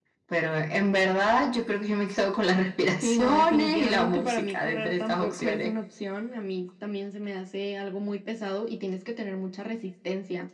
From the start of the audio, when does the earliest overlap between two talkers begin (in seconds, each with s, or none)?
2.9 s